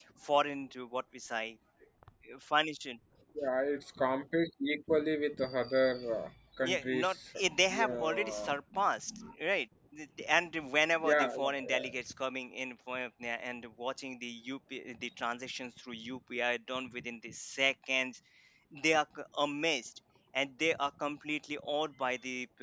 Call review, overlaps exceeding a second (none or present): present